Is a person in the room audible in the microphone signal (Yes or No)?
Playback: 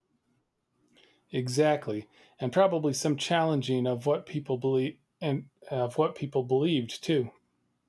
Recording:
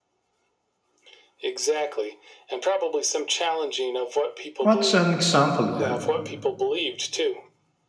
Yes